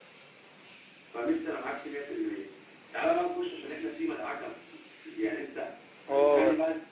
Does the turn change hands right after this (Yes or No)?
Yes